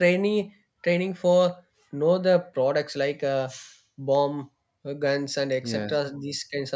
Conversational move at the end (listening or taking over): listening